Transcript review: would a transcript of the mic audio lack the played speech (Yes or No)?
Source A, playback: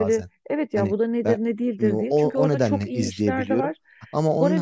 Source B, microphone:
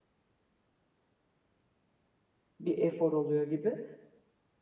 Yes